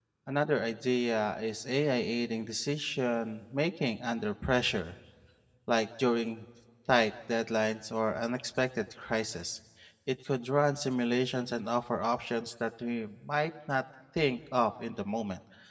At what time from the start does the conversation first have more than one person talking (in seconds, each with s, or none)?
none